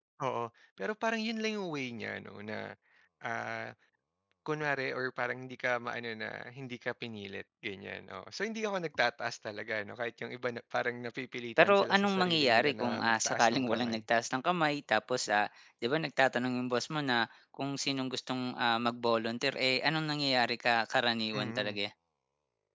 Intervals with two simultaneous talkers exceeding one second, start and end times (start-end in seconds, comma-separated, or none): 11.6-14.0